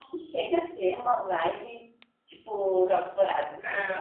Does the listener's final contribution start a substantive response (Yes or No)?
Yes